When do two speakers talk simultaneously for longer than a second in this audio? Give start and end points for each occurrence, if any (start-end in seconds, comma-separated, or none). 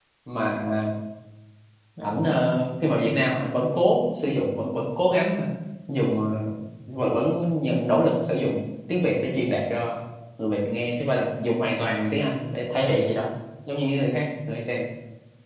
none